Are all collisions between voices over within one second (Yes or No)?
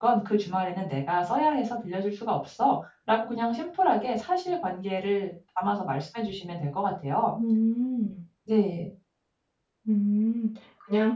Yes